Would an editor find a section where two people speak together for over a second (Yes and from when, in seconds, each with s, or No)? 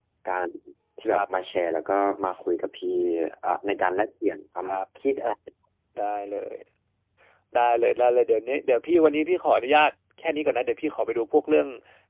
No